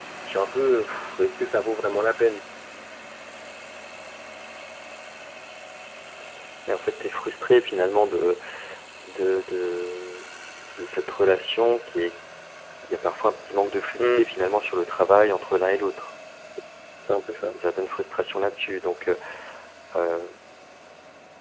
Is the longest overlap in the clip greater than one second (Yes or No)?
No